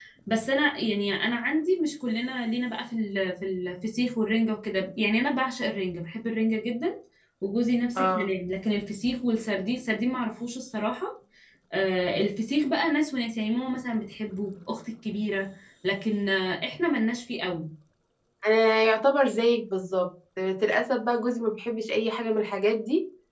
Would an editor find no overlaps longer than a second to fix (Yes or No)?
Yes